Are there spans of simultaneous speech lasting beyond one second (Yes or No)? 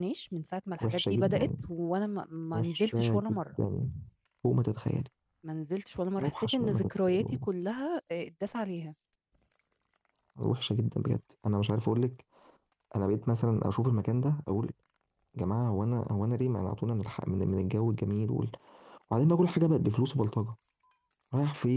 Yes